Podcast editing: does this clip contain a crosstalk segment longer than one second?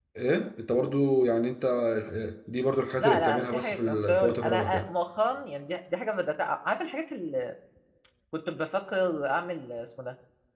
Yes, from 3.0 s

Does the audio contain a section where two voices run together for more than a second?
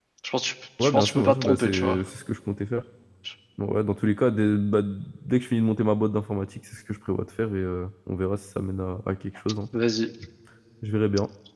Yes, from 0.8 s

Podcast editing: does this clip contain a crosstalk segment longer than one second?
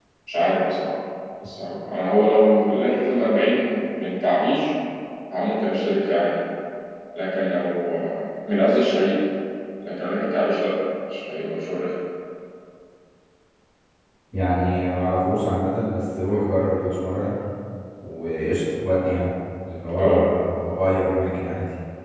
No

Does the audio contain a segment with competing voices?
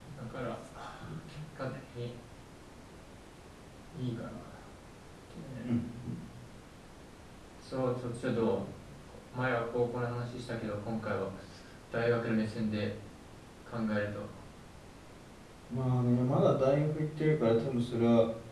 No

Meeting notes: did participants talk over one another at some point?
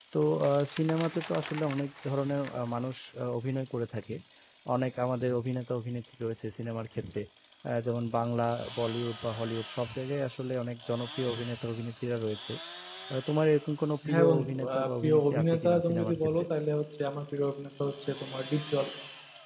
Yes, from 14.0 s

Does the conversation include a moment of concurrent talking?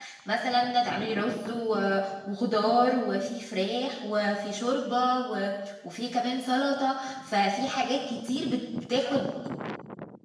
No

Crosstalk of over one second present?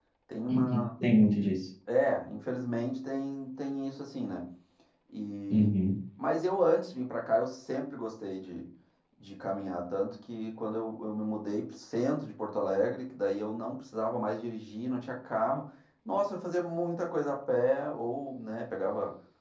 No

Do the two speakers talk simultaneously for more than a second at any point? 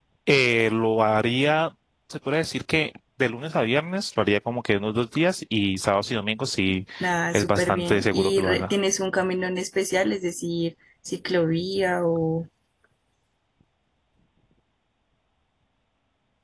Yes, from 7.3 s

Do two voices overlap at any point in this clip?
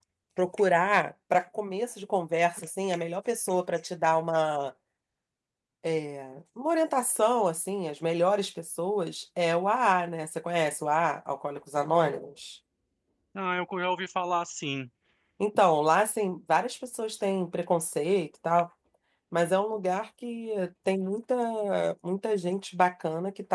No

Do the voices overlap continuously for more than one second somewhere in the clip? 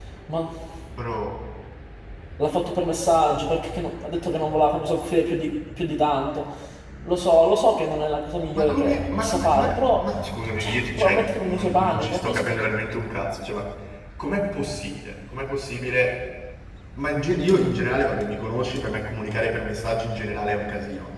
Yes, from 8.5 s

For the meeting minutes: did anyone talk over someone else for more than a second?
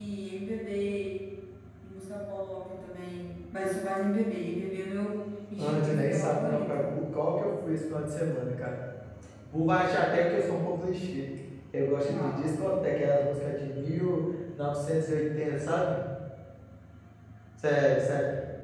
Yes, from 5.6 s

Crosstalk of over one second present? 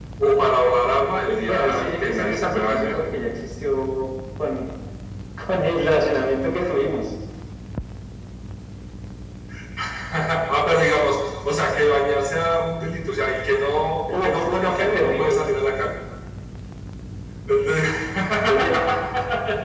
Yes, from 1.3 s

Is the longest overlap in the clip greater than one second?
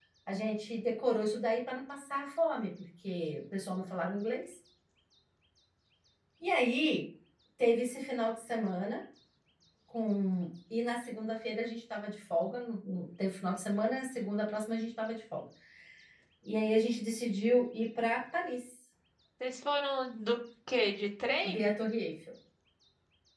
No

